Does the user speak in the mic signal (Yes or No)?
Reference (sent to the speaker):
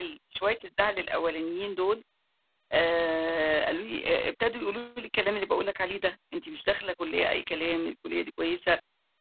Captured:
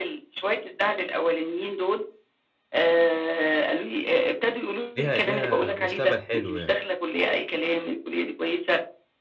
Yes